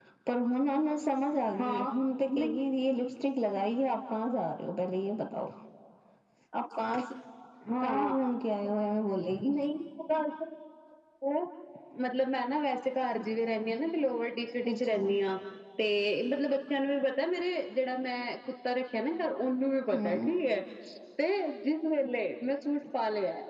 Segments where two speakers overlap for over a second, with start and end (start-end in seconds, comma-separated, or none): none